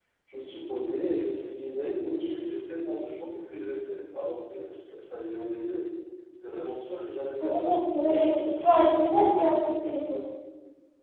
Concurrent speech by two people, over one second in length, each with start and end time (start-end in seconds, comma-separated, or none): 7.4-8.6